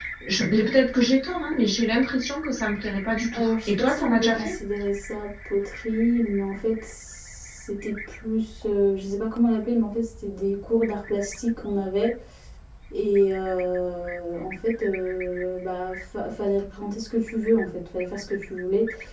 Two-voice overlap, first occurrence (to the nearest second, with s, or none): 3 s